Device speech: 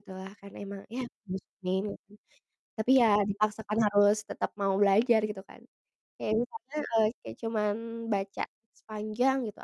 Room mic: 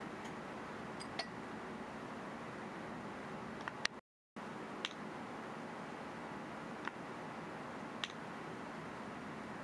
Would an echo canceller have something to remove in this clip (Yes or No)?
No